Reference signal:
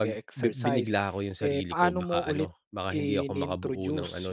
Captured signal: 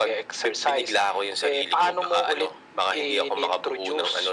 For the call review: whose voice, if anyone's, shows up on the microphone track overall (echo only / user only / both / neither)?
echo only